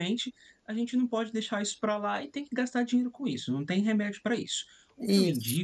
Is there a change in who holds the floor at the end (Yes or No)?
No